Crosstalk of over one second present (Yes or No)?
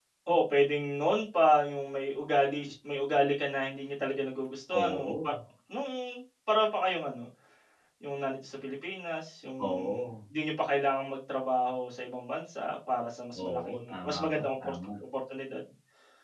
Yes